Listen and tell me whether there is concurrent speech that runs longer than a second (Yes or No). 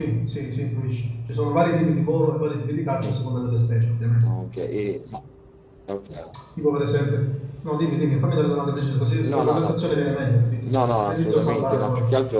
Yes